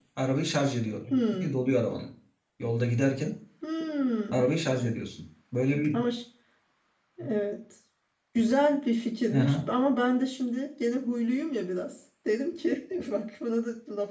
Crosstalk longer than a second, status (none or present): none